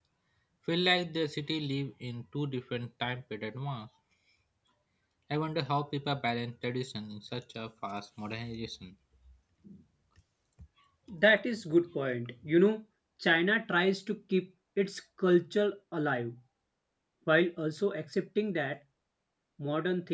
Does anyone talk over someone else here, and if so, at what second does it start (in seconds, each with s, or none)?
none